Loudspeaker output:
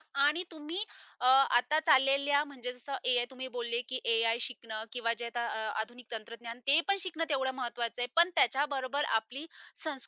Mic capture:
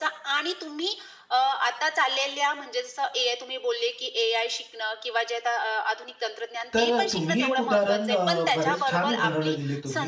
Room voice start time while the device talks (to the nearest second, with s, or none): 7 s